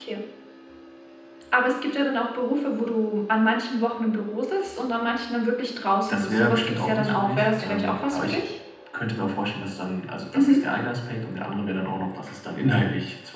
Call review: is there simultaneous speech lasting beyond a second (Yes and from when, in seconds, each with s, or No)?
Yes, from 6.1 s